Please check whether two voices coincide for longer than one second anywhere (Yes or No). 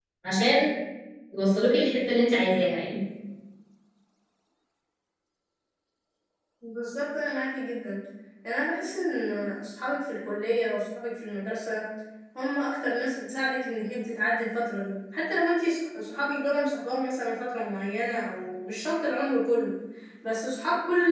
No